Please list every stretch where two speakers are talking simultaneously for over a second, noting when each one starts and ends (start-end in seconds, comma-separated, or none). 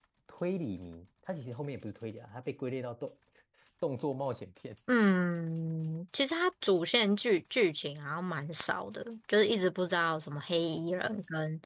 none